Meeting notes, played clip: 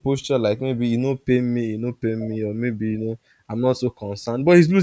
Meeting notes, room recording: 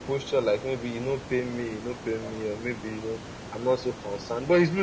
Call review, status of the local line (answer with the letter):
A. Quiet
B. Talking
A